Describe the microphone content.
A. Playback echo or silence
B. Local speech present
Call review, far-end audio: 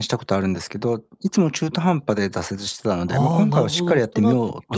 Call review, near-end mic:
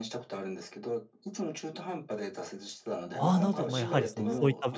B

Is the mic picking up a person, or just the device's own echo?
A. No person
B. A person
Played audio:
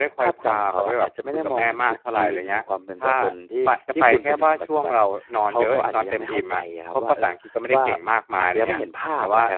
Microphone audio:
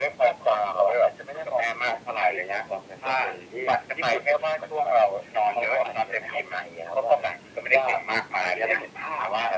A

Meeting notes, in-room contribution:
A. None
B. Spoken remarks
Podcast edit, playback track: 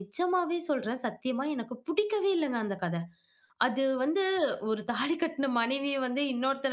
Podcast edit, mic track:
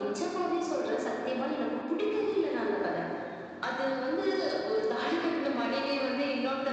A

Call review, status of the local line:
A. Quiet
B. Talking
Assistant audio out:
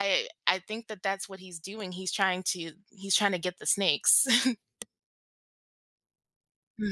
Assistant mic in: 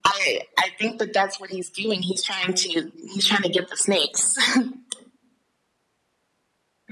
A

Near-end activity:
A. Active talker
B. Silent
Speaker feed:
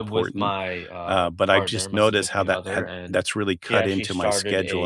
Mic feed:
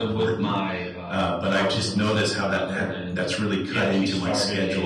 B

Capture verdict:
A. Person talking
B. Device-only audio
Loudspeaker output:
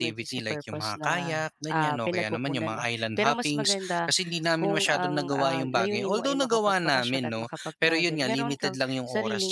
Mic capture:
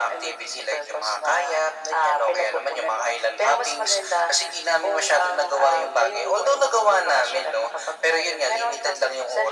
B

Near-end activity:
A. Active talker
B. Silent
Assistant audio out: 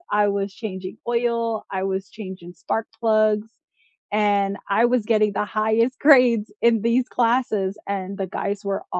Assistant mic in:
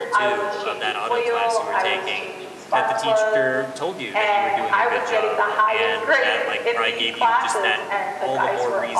A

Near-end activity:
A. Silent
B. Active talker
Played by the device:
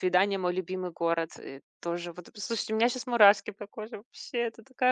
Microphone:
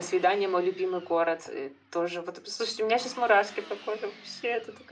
A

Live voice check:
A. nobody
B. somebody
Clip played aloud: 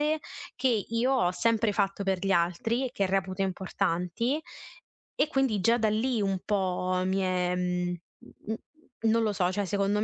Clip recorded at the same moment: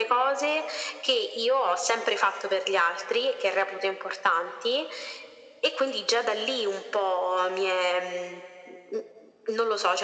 A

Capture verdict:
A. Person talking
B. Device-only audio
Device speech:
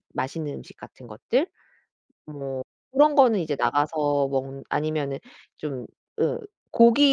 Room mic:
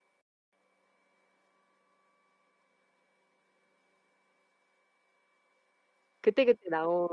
A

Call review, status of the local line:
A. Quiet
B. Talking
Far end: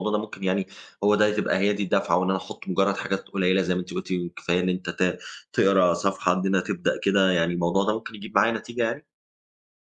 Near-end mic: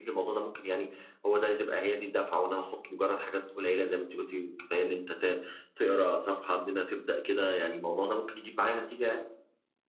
A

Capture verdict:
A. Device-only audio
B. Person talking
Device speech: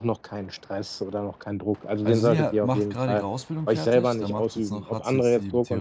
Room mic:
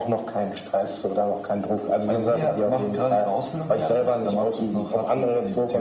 A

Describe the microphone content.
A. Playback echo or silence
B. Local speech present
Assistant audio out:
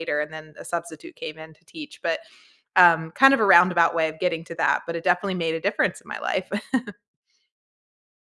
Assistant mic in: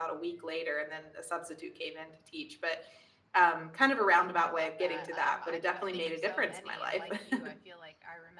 B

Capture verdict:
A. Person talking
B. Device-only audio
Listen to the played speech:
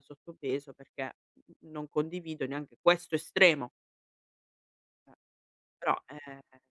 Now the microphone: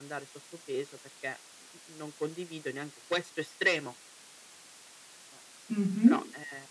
A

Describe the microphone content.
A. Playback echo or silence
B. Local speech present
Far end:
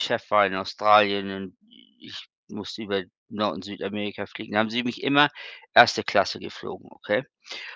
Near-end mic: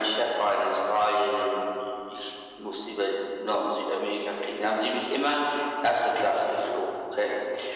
A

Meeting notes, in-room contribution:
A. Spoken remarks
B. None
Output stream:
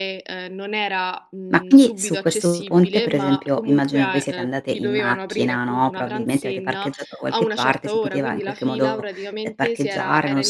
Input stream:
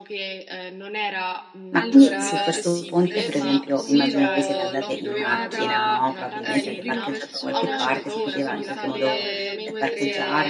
A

